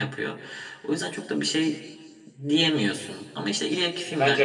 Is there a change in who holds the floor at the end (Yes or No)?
Yes